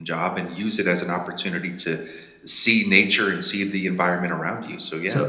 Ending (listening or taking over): taking over